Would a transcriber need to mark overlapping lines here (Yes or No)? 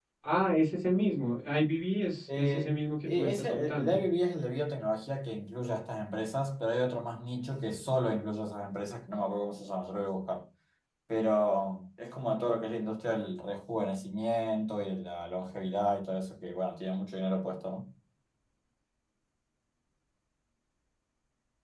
Yes